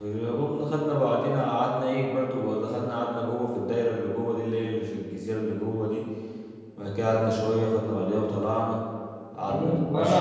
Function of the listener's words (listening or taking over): taking over